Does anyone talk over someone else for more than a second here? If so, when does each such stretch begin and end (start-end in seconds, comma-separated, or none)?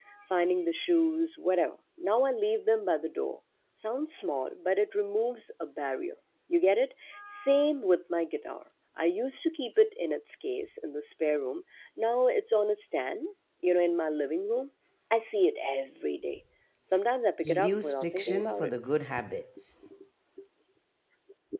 17.5-18.7